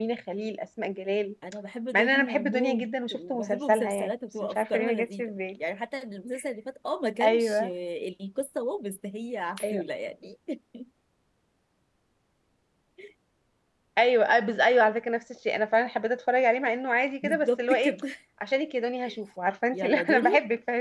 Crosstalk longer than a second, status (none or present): present